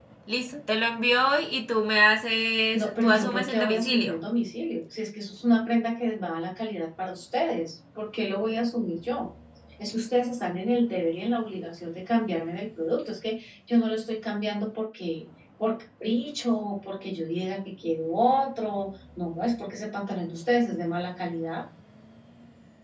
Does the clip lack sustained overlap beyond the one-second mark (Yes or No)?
No